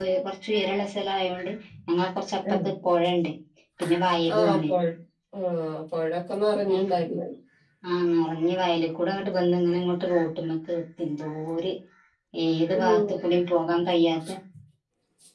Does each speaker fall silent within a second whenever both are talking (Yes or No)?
Yes